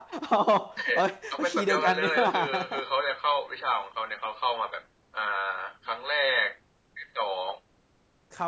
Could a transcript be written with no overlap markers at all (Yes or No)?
No